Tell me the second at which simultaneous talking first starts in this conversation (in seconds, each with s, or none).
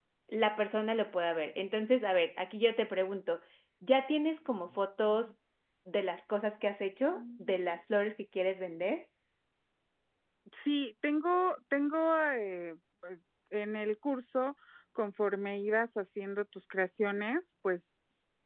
none